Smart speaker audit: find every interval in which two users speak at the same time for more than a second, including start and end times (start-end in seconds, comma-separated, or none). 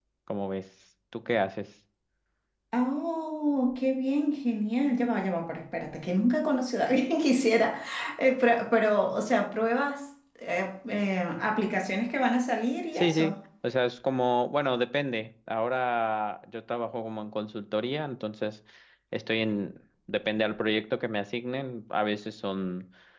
none